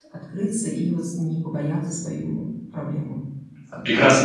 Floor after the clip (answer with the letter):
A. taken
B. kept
A